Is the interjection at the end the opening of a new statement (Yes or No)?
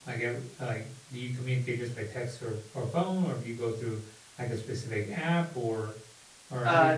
Yes